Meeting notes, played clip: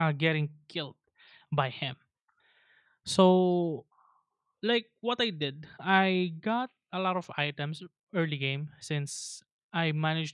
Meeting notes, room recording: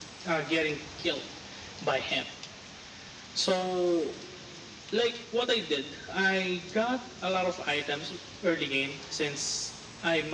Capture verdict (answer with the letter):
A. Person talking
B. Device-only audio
B